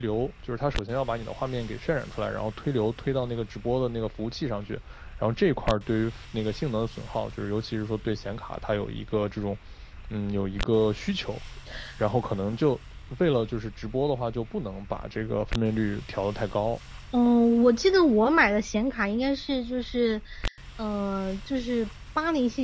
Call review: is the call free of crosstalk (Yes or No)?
Yes